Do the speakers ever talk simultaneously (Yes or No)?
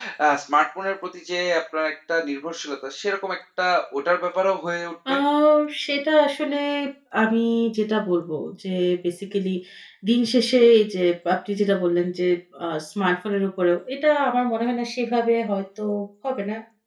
No